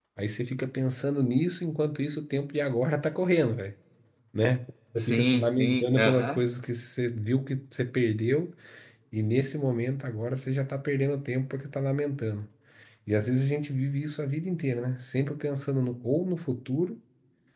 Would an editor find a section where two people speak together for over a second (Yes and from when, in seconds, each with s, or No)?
Yes, from 5.0 s